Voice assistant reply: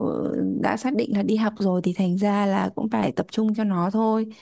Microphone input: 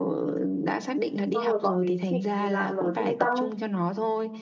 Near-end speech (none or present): present